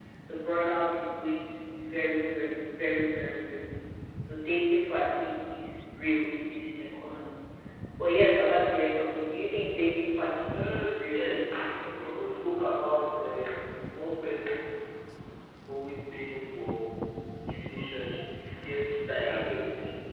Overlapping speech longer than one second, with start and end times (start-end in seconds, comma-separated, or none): 10.6-12.4